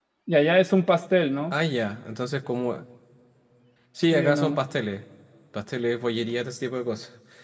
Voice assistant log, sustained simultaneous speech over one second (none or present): none